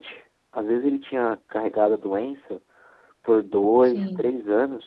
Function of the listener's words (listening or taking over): listening